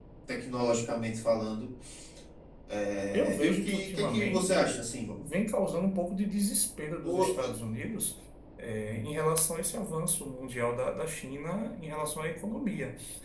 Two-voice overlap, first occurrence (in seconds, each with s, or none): 3.1 s